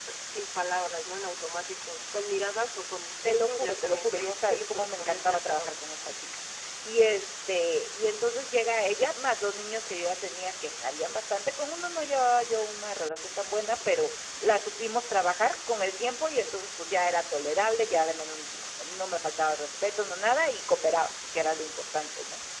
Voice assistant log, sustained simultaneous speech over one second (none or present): present